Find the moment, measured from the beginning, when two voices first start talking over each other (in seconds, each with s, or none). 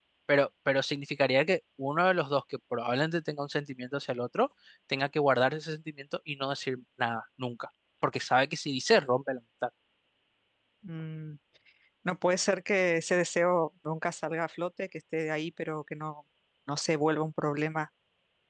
none